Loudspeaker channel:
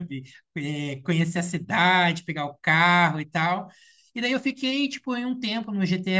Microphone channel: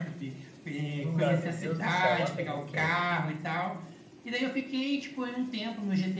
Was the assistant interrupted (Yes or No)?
Yes